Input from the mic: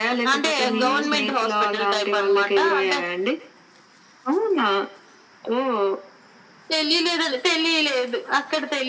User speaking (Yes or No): Yes